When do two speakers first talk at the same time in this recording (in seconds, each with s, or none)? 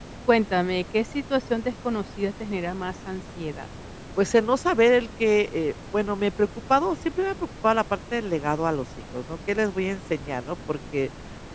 none